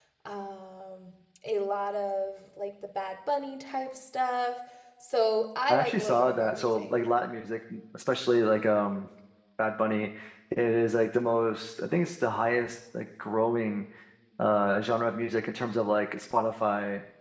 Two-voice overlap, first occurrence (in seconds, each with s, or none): 5.7 s